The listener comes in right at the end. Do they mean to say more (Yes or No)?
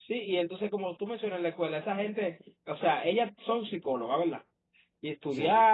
No